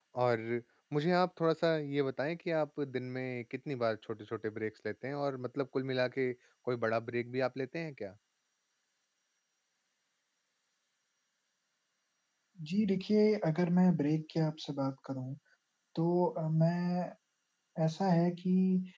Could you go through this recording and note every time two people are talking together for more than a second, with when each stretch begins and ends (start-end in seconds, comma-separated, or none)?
none